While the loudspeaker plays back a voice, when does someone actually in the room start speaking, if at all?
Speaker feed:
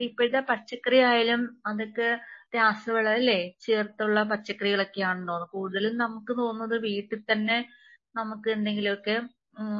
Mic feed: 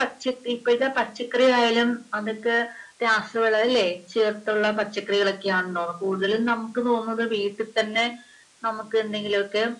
none

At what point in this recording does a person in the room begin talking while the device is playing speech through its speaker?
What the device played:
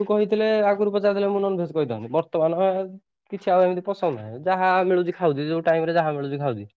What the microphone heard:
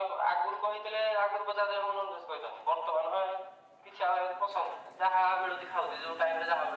none

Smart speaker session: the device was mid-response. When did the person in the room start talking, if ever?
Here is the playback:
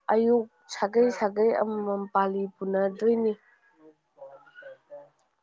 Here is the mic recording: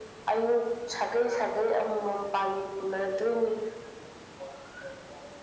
none

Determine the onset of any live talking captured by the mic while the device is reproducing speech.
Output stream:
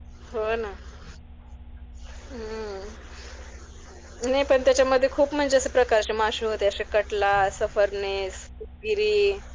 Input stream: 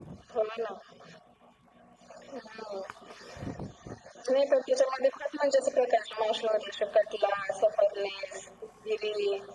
none

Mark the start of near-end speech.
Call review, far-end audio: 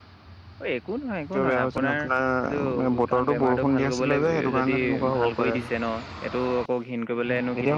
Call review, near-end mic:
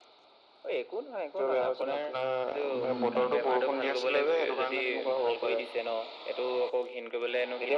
2.8 s

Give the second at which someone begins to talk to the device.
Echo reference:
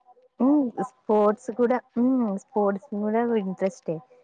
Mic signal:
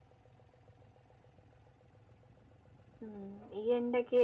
3.1 s

